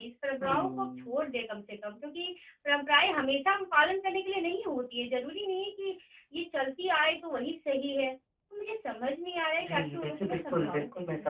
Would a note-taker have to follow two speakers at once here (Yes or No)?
Yes